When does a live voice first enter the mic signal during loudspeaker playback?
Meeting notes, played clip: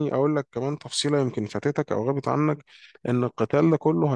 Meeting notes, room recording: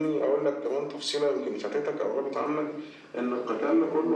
none

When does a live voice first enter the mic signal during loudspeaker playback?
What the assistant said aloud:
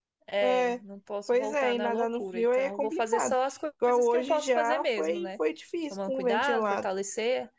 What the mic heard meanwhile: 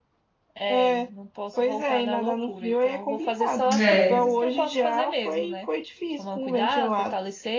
4 s

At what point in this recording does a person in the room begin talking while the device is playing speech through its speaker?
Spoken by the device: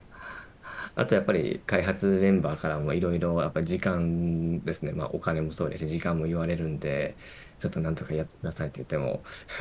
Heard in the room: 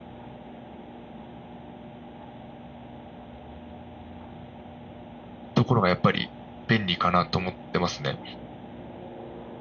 6 s

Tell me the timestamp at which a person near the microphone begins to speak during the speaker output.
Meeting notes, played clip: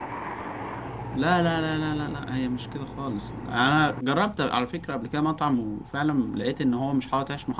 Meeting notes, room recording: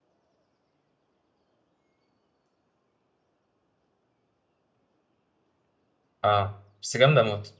6 s

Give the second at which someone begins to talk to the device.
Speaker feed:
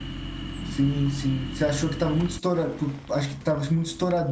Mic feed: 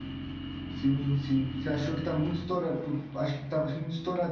none

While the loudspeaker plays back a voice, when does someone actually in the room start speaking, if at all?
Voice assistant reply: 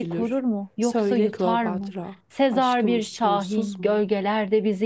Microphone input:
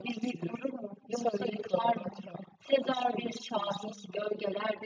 none

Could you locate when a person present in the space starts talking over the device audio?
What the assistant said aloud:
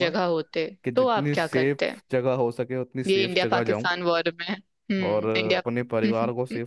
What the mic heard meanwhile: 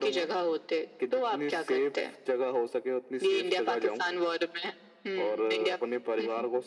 none

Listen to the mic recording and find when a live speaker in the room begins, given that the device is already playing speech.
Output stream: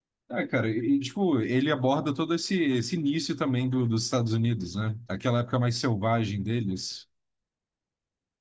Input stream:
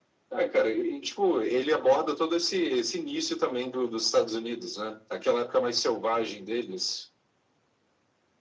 none

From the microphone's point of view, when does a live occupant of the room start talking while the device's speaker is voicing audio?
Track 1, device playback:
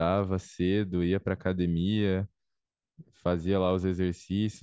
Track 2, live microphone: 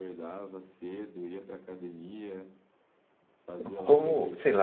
4 s

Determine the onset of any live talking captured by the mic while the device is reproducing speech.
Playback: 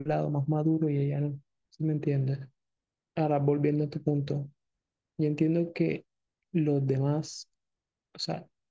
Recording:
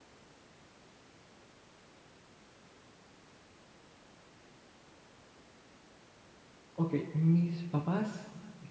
7 s

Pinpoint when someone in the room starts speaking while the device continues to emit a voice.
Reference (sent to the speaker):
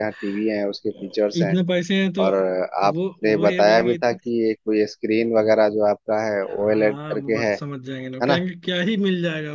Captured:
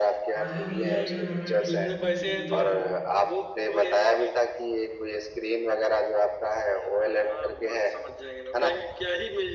0 s

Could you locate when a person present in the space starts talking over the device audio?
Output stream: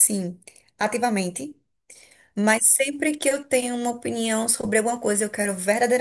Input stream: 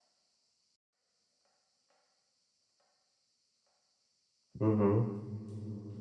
5 s

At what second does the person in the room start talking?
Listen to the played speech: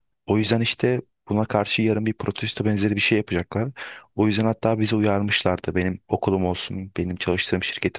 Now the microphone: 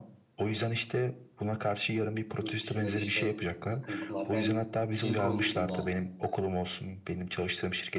2 s

